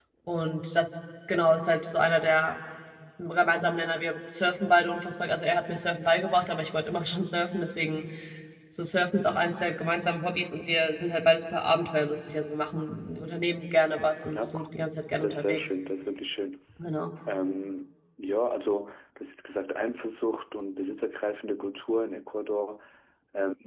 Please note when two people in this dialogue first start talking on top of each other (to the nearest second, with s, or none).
14 s